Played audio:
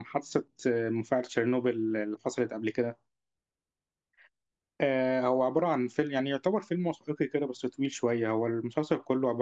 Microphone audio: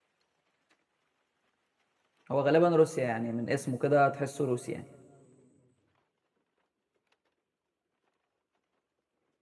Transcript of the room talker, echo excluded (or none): هو غالبا روسيا يعني من اسمه كده تحسه روسي يعني